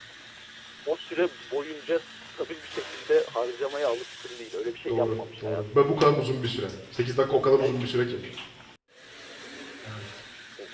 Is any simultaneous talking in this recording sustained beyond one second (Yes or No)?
Yes